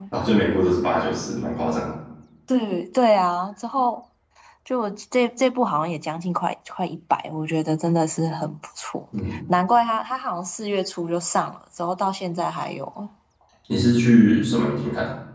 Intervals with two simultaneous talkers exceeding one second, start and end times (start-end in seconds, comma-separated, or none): none